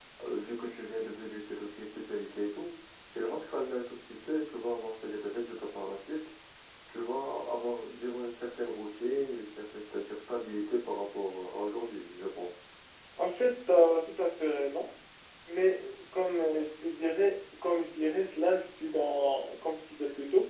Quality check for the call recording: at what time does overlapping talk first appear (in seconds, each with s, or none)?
none